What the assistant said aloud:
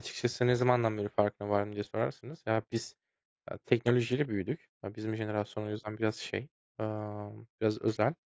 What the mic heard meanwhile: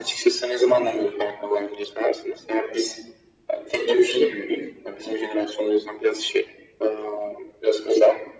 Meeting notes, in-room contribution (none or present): none